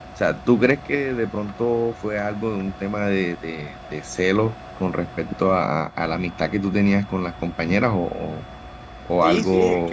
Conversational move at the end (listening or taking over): taking over